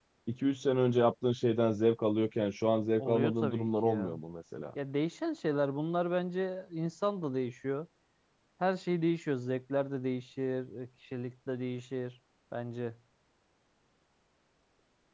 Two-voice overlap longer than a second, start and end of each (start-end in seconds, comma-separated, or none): 3.0-4.2